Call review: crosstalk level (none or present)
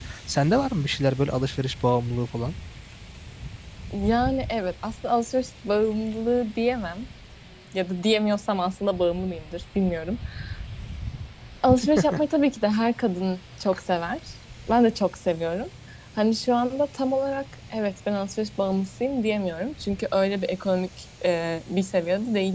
none